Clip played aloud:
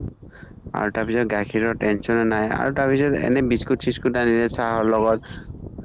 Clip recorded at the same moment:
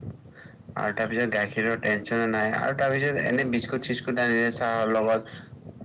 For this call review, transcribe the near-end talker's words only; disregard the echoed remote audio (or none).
none